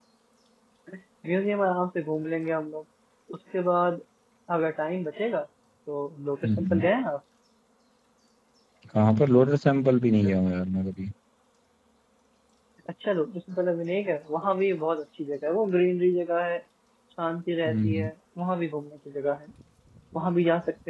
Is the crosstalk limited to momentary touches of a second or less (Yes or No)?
Yes